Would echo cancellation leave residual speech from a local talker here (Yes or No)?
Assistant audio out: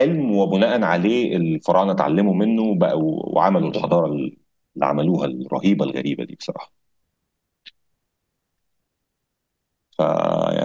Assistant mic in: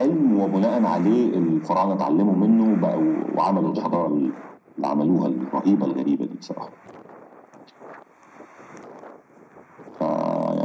No